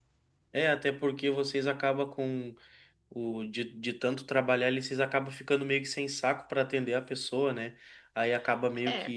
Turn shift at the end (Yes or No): No